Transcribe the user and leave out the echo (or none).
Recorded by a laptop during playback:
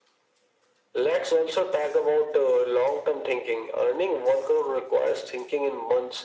none